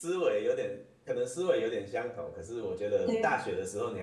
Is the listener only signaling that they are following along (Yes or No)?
Yes